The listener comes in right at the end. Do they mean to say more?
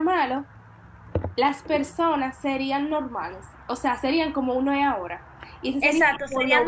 Yes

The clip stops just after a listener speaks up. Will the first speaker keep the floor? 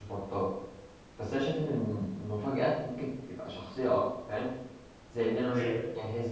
Yes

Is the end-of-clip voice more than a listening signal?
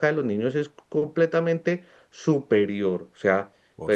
No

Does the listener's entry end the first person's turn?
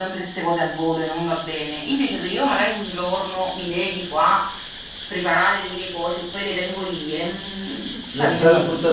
Yes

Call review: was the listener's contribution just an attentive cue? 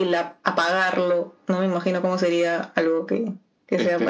No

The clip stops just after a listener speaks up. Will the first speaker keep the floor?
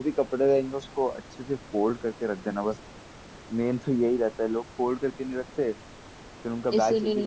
Yes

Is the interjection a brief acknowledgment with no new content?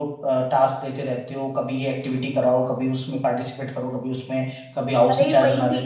No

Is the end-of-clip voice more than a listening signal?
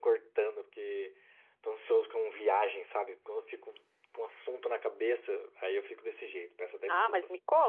Yes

